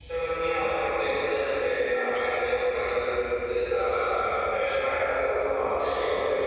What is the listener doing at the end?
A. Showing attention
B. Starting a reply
A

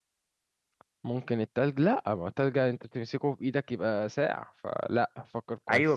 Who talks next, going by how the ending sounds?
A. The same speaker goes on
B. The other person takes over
B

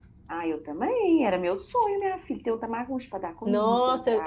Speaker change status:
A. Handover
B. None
A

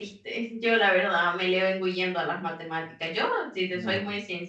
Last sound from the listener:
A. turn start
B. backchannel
B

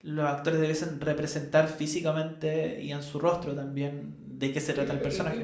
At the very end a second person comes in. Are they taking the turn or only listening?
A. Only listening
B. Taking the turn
B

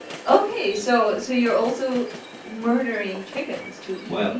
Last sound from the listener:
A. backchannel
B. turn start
B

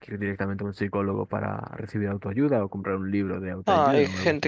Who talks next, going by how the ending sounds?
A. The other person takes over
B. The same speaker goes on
A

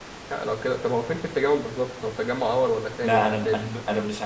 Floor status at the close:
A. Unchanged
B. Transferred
B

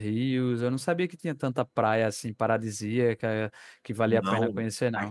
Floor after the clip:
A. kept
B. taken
B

